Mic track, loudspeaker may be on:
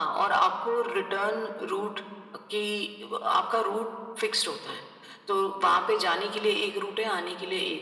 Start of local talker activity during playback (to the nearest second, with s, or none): none